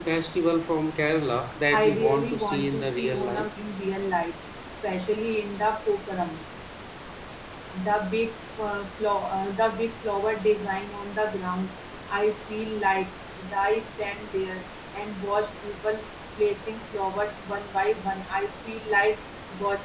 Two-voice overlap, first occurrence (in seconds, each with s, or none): 1.7 s